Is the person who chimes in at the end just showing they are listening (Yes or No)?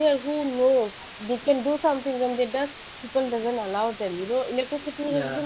Yes